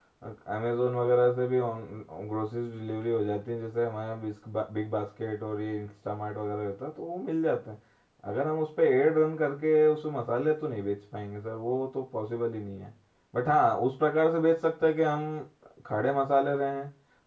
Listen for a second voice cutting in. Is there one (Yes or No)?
No